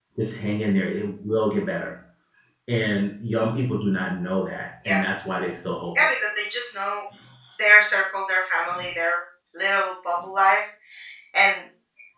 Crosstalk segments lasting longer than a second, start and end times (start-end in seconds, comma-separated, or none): none